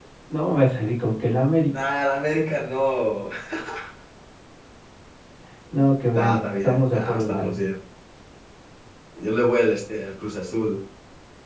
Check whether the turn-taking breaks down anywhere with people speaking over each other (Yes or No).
Yes